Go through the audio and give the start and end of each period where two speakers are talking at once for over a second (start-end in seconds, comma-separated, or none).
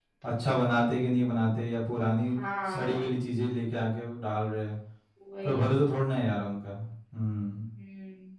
none